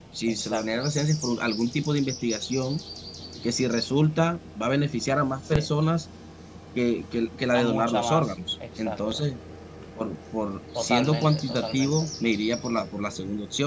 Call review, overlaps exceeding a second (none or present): present